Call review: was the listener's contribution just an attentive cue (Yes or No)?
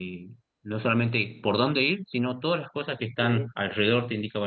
Yes